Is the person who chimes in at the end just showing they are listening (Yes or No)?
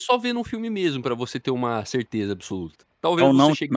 No